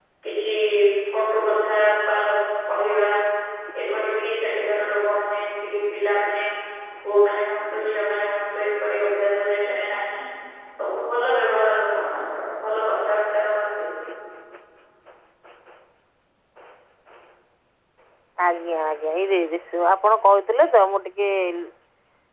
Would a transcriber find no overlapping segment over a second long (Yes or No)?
Yes